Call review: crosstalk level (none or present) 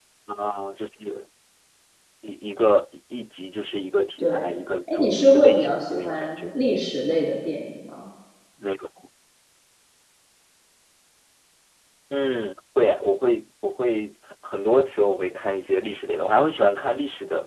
present